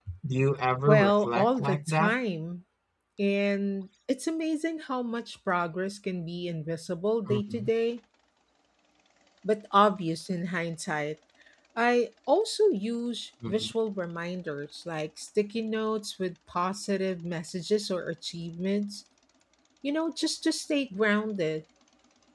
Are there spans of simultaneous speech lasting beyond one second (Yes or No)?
Yes